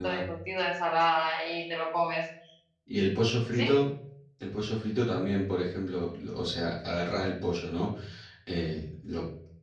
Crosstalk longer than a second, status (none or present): none